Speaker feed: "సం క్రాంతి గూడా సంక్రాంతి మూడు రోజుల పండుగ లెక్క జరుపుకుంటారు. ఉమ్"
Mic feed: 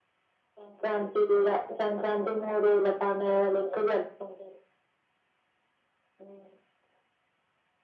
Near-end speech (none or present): none